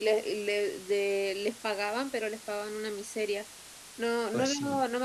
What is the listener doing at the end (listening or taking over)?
listening